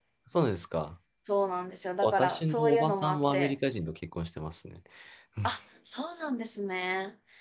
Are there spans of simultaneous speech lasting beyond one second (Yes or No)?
Yes